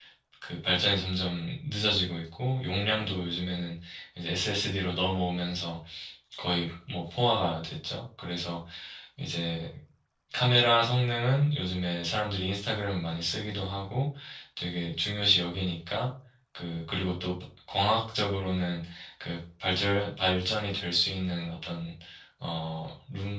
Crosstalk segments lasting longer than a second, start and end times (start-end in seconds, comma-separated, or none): none